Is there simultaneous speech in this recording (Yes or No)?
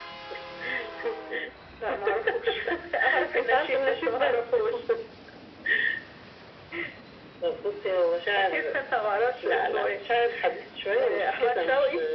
Yes